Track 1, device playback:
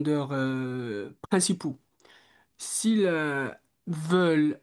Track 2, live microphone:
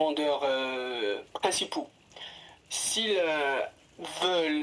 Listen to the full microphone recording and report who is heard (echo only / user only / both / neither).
echo only